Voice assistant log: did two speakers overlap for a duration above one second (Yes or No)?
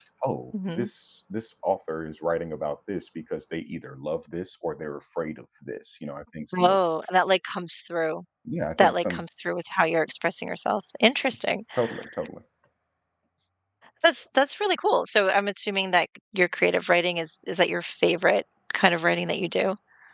No